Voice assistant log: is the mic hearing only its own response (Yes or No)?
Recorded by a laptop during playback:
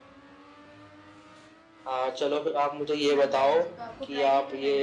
No